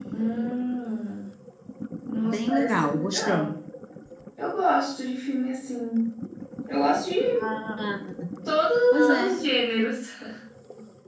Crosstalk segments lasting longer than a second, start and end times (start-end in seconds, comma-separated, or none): 2.2-3.5